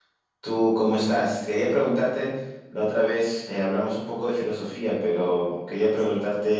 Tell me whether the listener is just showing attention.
Yes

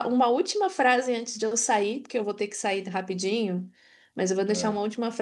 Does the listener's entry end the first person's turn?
No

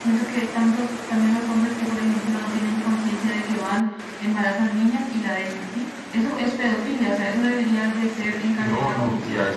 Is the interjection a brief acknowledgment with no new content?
No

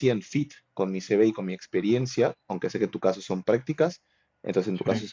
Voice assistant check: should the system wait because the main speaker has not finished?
Yes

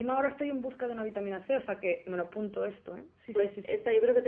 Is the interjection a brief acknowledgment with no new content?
No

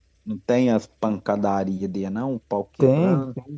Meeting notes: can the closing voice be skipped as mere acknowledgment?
No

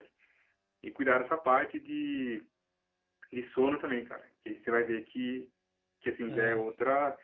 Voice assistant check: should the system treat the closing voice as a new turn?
No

